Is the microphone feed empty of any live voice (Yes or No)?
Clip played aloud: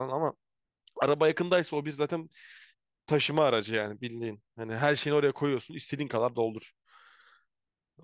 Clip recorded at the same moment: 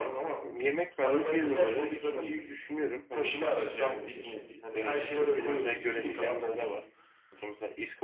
No